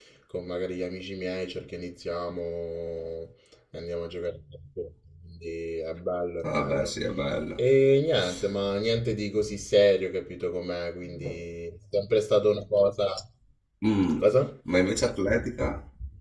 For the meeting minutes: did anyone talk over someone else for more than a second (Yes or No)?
No